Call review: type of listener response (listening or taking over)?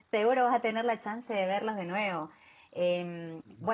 listening